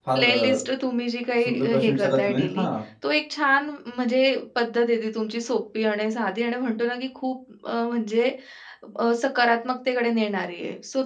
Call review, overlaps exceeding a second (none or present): present